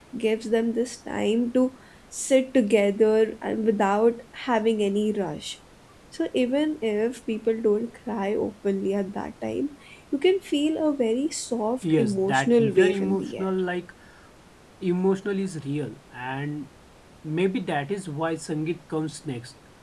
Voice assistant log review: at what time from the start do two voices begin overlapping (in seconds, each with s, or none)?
11.8 s